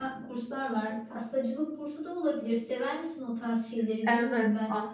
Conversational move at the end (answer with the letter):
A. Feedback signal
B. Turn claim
B